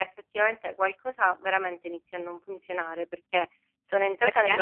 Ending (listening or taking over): listening